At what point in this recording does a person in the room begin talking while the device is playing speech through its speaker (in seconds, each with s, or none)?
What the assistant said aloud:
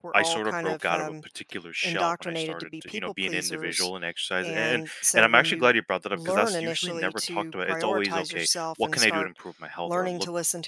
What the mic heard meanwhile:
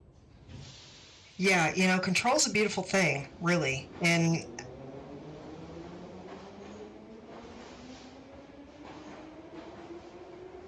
1.4 s